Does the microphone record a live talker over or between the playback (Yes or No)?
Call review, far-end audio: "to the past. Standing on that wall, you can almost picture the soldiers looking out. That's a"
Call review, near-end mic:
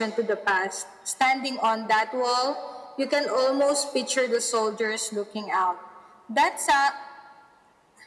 No